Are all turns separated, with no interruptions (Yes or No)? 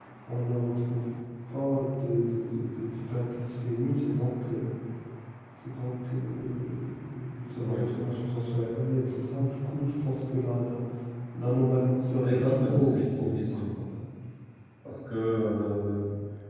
No